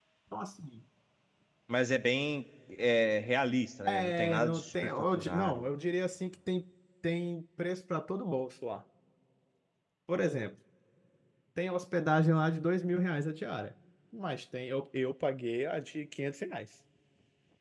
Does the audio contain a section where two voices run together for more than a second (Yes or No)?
Yes